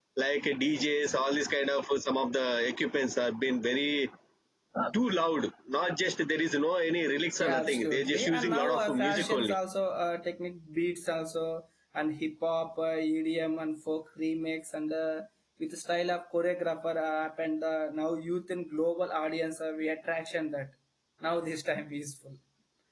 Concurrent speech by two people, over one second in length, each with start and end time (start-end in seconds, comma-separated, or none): 7.4-9.6